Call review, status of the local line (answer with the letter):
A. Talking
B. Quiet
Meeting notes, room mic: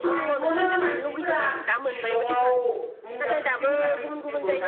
A